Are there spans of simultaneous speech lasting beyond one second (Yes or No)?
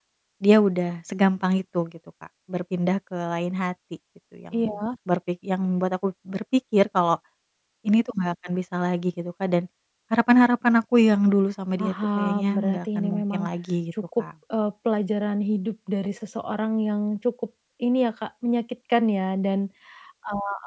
Yes